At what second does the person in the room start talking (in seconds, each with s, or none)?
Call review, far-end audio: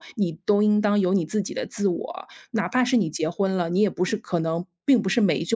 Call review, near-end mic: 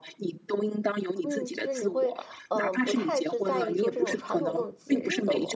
1.2 s